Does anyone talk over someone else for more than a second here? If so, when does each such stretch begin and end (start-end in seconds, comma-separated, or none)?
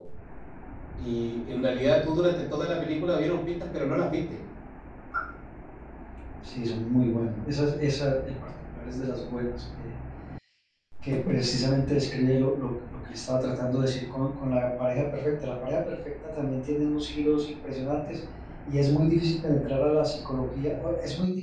none